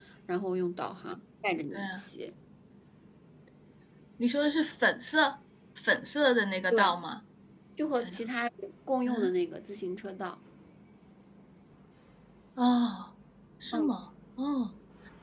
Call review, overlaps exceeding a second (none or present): none